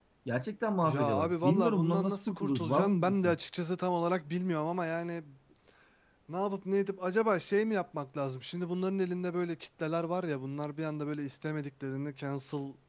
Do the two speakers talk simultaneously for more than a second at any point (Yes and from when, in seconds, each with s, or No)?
Yes, from 0.8 s